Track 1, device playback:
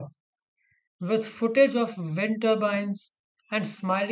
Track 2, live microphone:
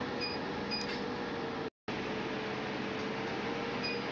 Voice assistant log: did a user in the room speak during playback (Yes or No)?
No